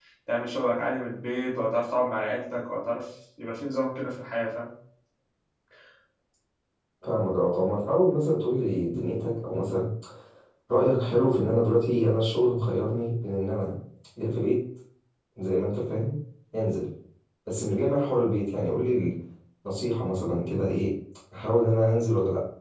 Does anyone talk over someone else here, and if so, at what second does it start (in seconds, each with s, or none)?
none